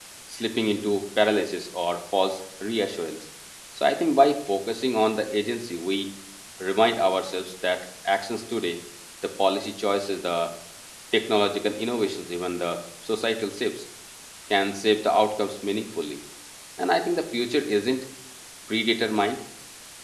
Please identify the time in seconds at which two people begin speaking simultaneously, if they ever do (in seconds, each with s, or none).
none